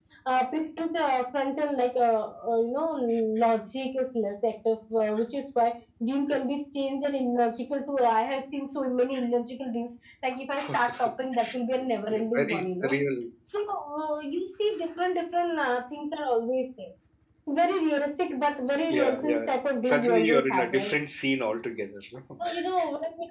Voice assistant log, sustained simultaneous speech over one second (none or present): present